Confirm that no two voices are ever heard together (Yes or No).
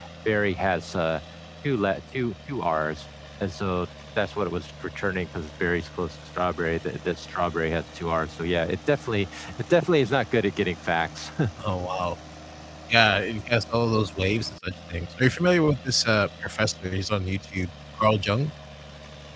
Yes